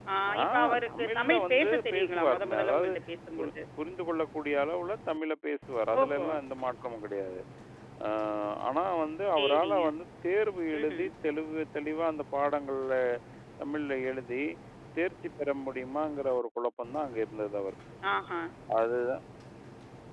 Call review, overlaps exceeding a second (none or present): present